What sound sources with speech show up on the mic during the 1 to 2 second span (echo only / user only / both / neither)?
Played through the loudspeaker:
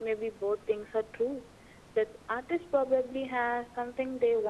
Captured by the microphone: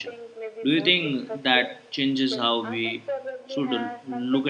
both